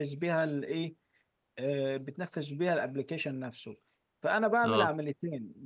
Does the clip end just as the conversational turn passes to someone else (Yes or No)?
No